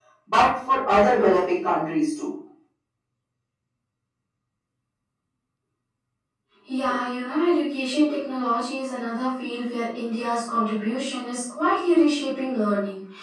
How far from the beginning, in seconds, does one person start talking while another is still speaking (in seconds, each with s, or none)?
none